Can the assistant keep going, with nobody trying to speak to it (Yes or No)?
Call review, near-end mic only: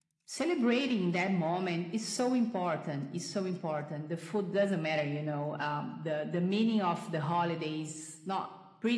Yes